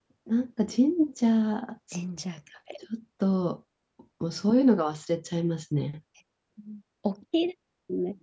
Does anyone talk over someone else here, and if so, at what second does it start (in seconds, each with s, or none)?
none